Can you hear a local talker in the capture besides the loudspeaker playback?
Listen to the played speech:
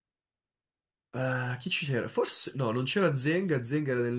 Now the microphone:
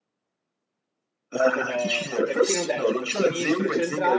Yes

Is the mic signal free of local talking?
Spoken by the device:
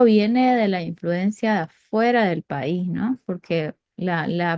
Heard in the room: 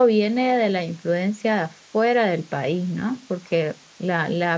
Yes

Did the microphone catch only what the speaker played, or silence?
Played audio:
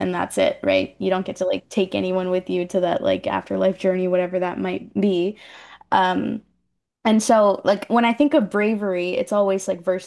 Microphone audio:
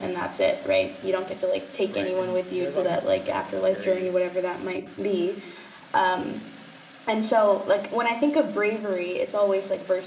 No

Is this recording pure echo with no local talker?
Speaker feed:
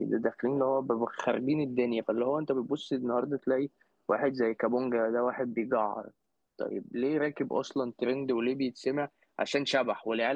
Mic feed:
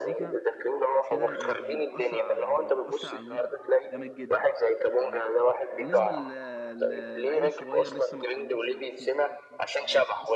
No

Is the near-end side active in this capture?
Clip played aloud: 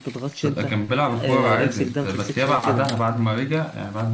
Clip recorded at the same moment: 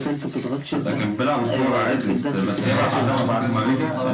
Yes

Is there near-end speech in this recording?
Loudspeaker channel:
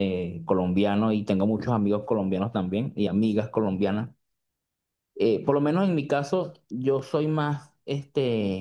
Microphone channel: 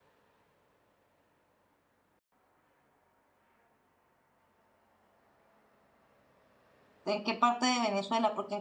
Yes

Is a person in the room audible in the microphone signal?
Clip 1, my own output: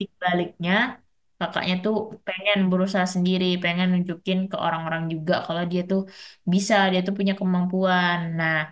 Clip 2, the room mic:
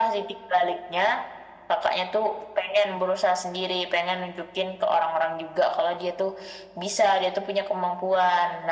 No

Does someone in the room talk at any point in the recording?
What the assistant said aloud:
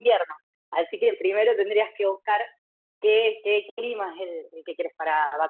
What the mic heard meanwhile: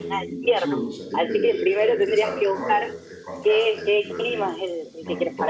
Yes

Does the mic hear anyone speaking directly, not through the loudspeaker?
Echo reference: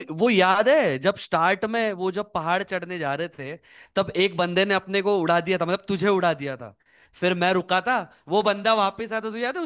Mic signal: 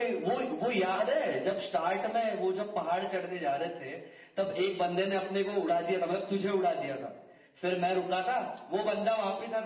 No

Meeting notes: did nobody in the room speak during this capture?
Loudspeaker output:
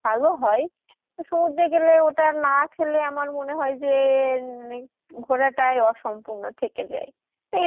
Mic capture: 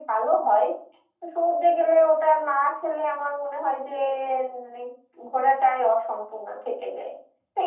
Yes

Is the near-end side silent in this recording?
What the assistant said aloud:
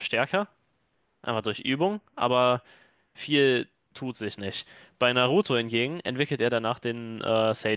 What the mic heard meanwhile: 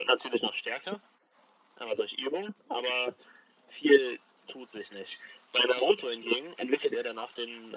Yes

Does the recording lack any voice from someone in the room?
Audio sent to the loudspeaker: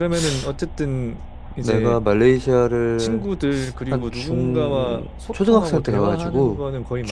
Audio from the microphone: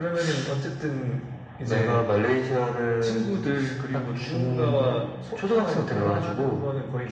Yes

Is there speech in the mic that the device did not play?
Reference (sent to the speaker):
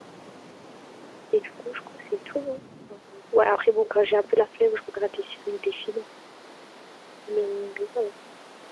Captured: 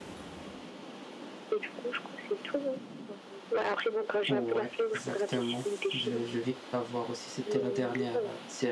Yes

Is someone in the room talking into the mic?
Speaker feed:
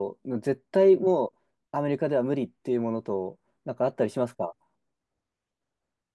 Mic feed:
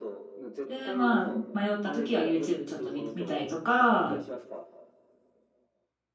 Yes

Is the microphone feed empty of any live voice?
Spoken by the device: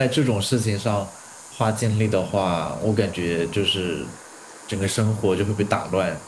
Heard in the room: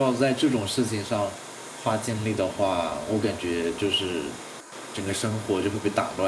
Yes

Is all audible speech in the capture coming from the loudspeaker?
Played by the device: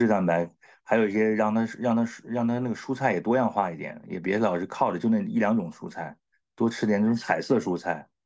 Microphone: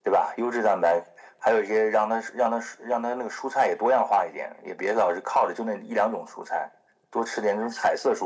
Yes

